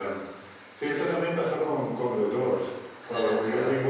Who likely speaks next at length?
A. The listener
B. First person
B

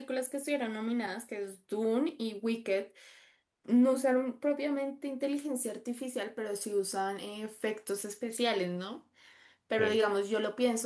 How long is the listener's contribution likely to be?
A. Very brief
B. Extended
A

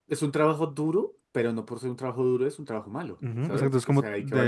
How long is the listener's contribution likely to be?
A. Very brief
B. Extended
B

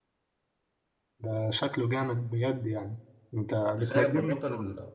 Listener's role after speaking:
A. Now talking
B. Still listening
A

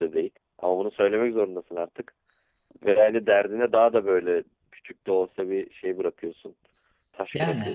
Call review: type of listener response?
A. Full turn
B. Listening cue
A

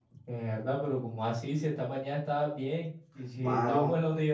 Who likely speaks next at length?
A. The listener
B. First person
B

